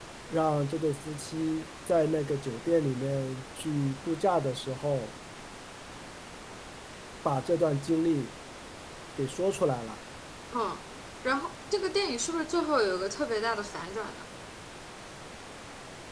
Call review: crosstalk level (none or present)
none